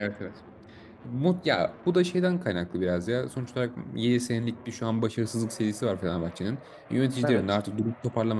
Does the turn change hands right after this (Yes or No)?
No